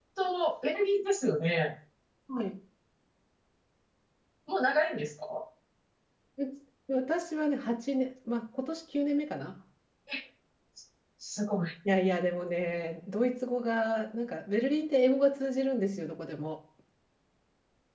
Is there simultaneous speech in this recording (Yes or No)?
No